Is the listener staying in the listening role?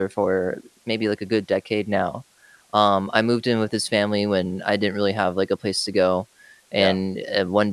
Yes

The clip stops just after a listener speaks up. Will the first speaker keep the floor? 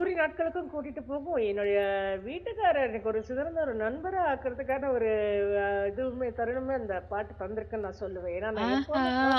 No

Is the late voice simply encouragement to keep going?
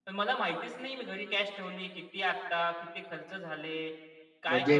No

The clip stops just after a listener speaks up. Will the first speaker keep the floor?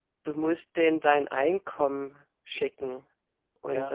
Yes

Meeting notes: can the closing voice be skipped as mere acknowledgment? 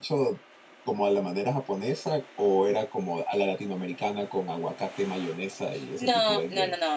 No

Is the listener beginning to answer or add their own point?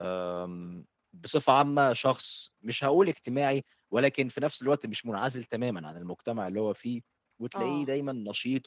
No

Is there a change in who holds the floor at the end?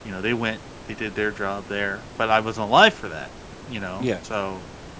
No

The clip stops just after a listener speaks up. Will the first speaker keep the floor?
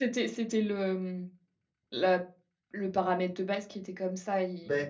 Yes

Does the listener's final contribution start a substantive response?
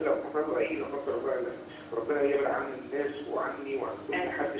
No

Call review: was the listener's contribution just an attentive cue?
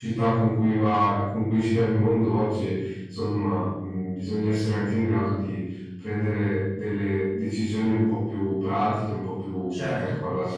No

